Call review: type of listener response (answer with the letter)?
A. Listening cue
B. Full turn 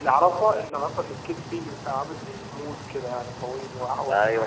B